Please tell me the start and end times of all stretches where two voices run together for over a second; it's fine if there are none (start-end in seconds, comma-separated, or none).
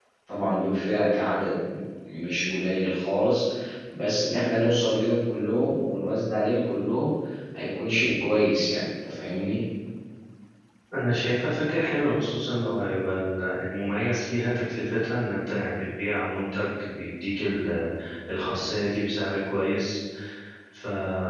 none